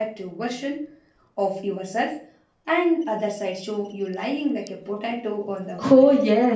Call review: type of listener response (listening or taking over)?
taking over